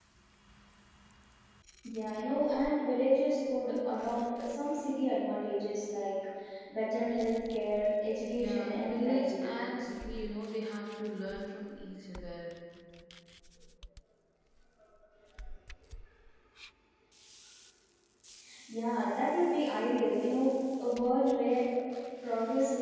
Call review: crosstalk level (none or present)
present